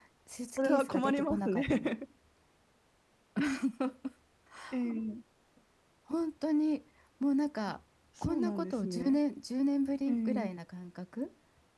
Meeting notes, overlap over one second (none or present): present